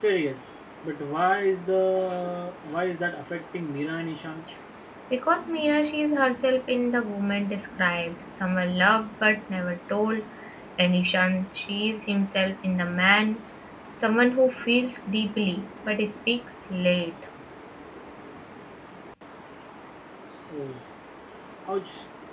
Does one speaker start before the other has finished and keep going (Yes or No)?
No